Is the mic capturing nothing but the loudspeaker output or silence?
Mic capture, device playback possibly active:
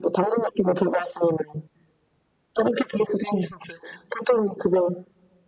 Yes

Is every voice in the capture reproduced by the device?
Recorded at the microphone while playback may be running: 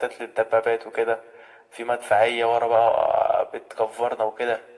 Yes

